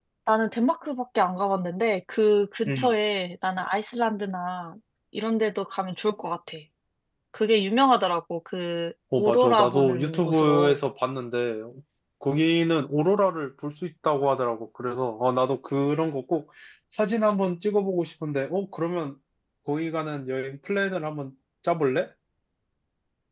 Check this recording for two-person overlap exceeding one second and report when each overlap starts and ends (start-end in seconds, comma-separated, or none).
9.2-10.8